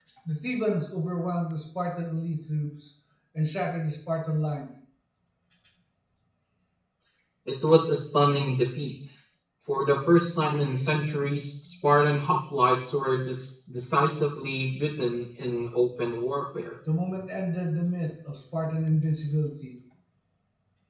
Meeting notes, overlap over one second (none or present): none